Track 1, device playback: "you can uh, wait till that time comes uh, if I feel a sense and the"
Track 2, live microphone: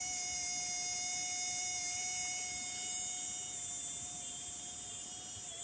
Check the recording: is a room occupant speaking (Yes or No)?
No